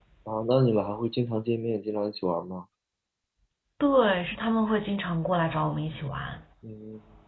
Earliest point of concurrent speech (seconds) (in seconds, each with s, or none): none